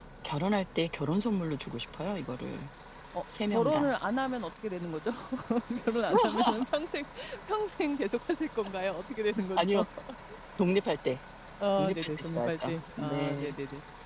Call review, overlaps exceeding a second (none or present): present